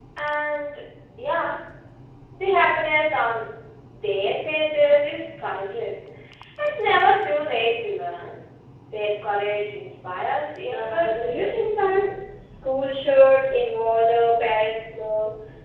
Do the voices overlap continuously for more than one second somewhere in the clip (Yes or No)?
Yes